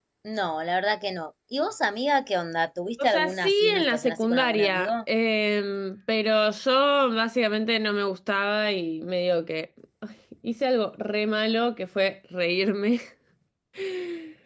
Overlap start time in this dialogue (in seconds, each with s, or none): 3.0 s